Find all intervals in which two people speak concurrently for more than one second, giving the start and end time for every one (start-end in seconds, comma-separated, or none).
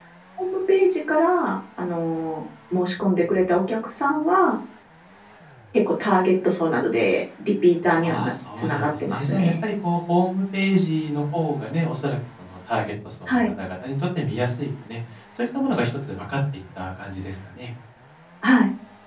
8.0-9.5